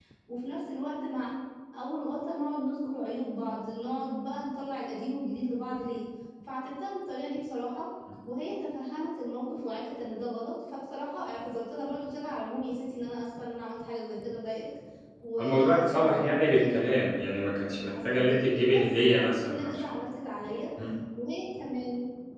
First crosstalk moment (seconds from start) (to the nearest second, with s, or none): 15 s